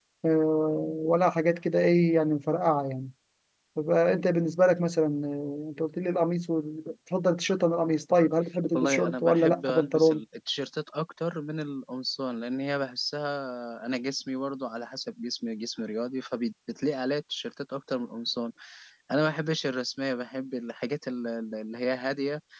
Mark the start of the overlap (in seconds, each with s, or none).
8.7 s